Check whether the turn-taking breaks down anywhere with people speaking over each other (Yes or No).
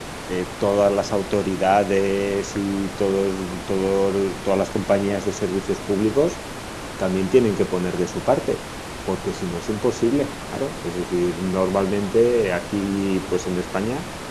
No